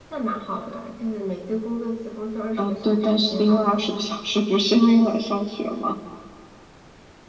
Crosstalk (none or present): present